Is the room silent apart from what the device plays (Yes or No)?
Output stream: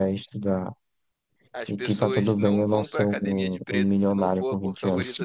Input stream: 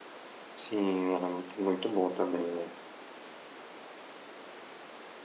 No